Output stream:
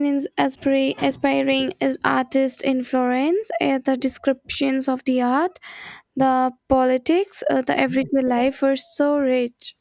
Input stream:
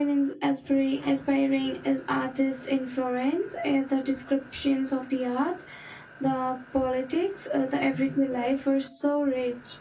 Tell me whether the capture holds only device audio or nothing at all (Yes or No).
Yes